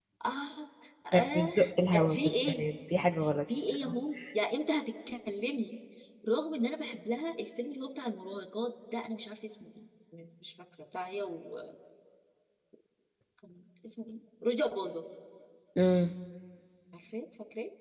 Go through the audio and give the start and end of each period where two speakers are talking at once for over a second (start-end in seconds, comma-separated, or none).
1.1-2.6